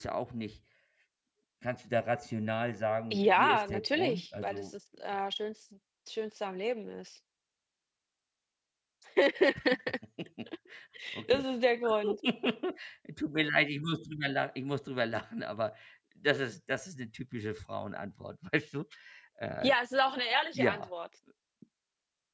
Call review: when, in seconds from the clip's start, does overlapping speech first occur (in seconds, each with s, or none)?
3.1 s